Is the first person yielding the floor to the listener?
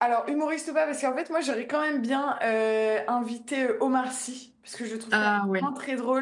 No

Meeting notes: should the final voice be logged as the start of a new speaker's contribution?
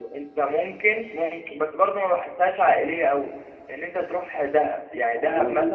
No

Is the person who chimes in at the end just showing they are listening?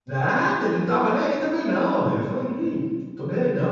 Yes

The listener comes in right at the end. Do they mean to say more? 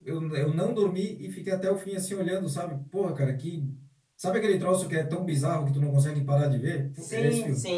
Yes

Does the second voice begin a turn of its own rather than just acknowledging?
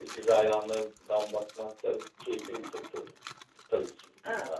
Yes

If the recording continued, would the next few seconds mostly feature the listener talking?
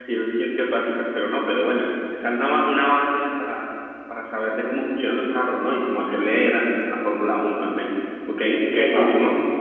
Yes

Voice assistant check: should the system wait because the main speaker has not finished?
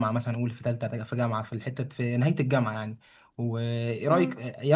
Yes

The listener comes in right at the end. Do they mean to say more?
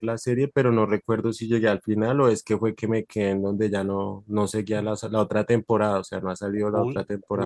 Yes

